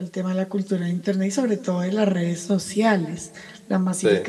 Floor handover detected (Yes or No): No